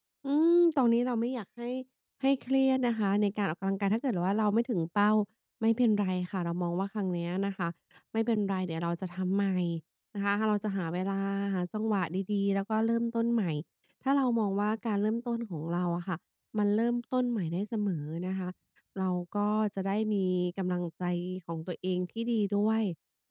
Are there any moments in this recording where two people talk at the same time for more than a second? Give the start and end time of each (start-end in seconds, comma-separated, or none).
none